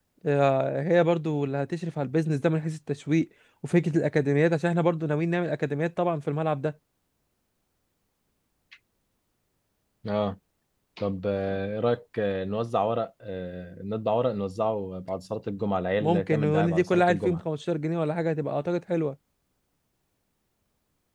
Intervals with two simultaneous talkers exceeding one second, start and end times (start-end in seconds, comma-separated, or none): 16.0-17.4